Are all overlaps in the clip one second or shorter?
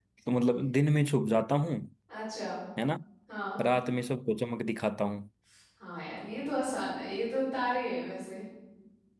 Yes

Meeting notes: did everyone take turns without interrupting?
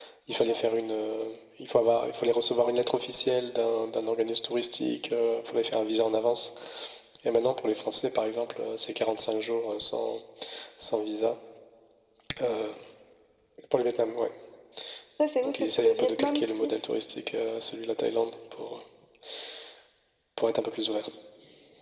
No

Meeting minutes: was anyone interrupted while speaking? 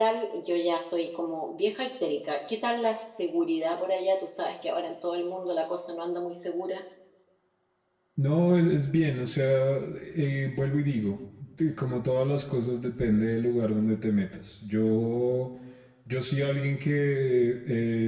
No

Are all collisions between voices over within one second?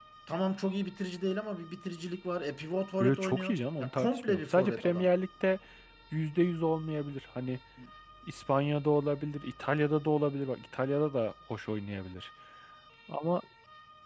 No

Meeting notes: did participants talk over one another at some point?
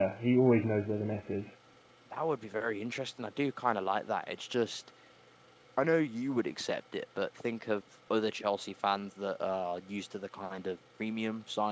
No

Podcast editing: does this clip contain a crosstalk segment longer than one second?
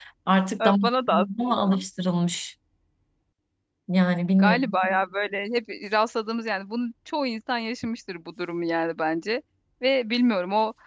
Yes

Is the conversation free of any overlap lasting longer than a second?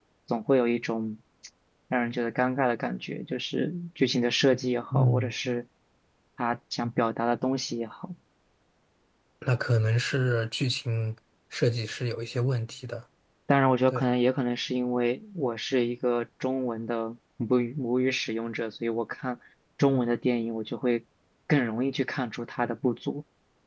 Yes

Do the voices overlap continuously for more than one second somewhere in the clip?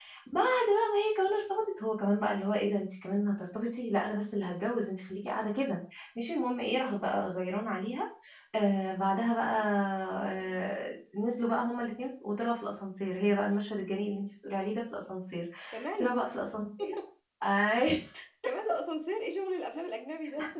No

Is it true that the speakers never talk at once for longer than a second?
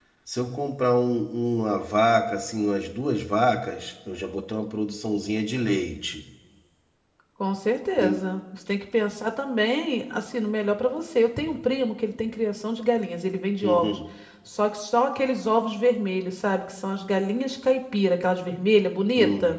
Yes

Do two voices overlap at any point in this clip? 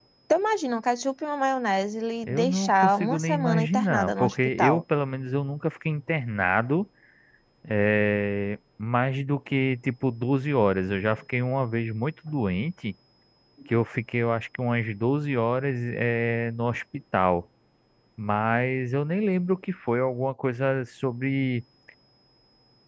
Yes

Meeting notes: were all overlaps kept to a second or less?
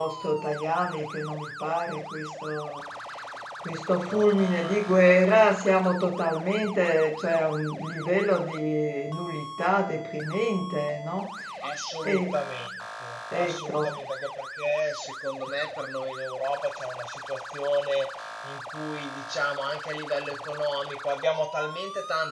No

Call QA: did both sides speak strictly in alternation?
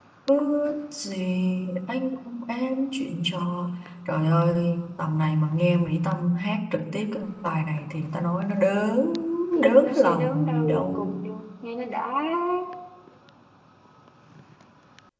No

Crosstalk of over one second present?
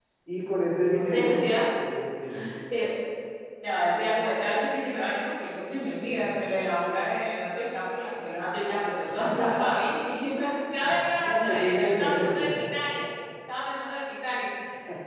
Yes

